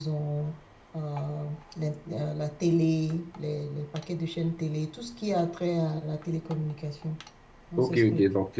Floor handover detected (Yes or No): Yes